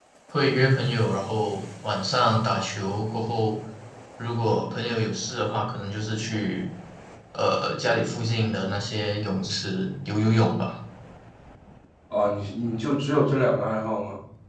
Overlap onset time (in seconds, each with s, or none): none